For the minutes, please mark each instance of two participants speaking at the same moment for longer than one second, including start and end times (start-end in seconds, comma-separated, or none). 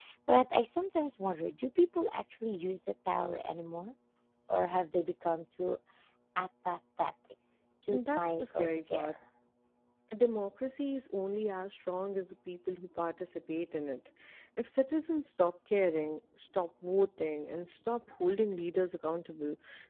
7.9-9.1